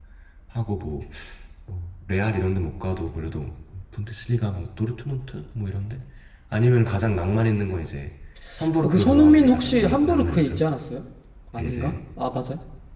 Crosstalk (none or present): present